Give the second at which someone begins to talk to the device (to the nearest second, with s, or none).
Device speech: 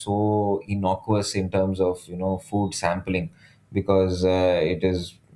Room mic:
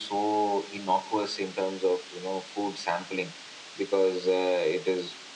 none